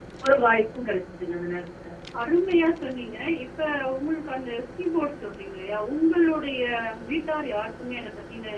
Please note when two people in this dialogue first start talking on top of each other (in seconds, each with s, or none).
none